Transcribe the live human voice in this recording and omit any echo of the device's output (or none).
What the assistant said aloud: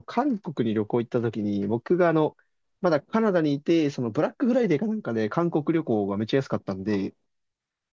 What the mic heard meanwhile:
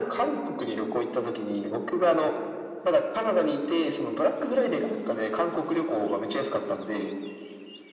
none